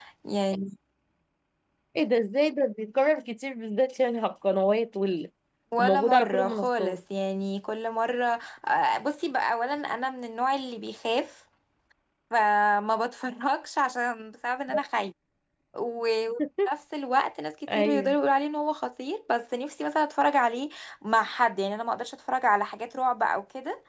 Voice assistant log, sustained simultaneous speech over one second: present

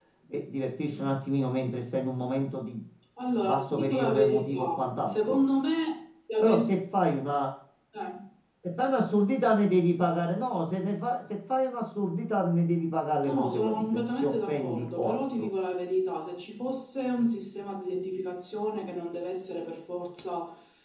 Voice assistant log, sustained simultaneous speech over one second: present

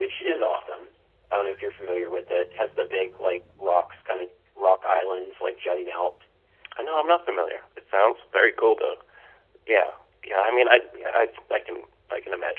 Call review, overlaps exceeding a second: none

